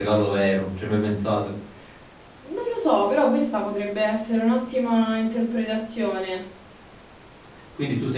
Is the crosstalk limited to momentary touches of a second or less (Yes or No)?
Yes